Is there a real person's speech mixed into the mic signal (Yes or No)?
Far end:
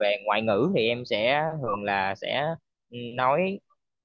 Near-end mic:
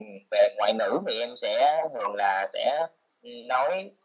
No